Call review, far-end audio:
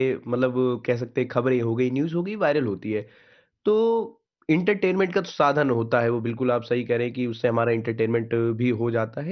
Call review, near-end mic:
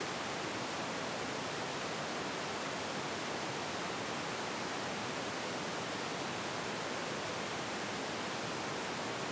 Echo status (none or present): none